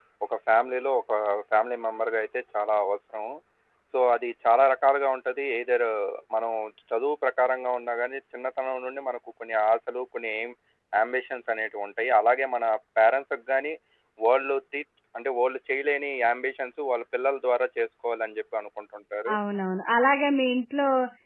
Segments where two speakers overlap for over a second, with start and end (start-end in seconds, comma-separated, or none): none